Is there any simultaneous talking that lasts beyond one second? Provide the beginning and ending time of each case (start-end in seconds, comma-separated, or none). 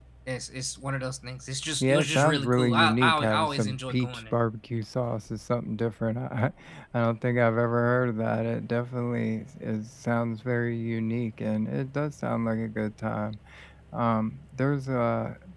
1.8-4.4